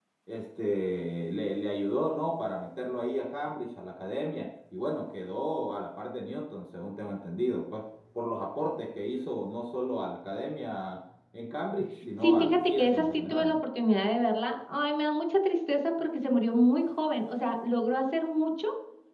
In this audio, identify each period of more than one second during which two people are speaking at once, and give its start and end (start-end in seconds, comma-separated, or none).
12.2-13.6